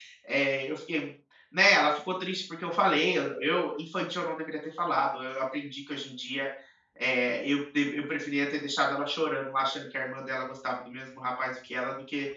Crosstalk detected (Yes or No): No